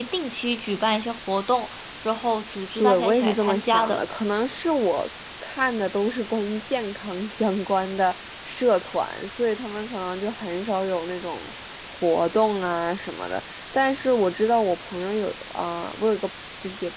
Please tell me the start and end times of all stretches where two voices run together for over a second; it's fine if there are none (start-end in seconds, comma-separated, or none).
2.8-4.0